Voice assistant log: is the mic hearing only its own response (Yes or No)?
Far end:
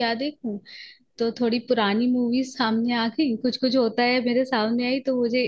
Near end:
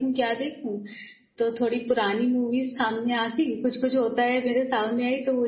Yes